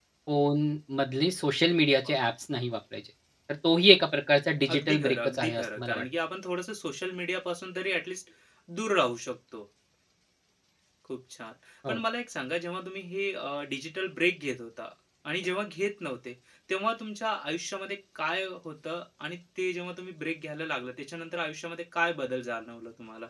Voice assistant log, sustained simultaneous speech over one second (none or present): present